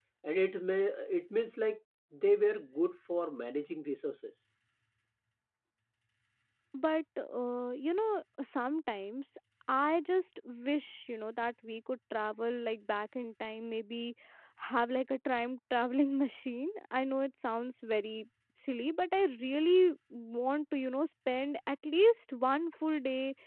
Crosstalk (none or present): none